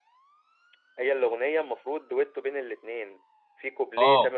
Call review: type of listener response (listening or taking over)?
listening